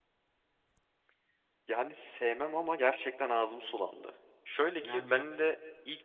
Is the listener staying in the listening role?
Yes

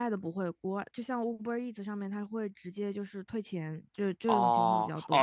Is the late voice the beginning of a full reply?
Yes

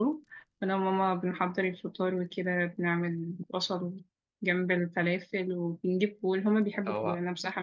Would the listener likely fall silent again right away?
Yes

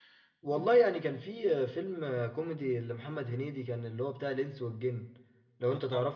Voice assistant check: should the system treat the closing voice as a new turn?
No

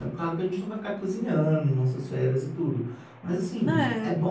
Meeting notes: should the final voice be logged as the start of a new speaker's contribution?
No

